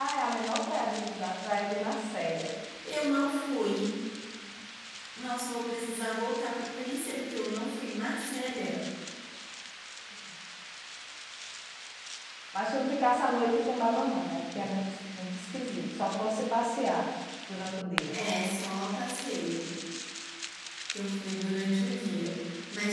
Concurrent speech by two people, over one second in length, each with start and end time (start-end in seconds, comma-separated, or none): none